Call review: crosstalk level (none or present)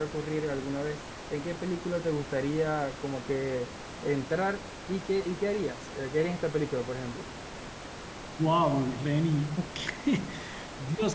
none